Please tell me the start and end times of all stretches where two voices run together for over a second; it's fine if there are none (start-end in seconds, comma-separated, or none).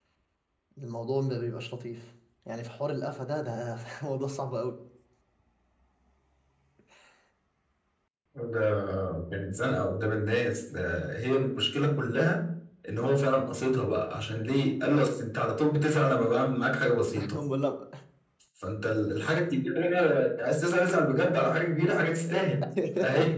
none